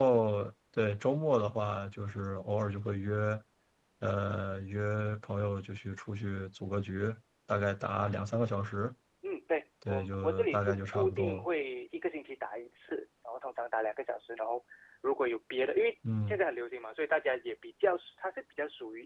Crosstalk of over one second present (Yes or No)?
Yes